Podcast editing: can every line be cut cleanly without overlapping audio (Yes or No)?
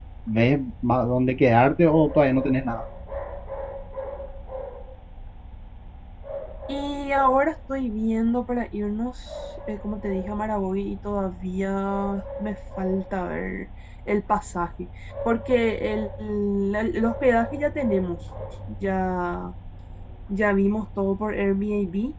Yes